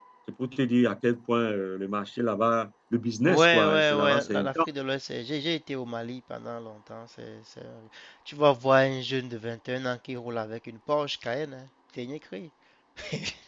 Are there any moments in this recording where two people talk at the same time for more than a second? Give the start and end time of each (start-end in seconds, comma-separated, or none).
3.2-4.5